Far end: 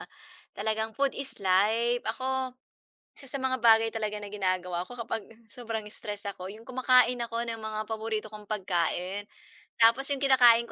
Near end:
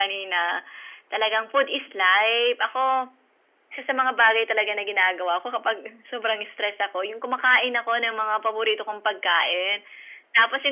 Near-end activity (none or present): none